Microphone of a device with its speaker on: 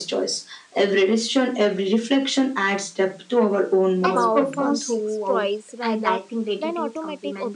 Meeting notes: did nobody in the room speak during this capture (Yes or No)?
No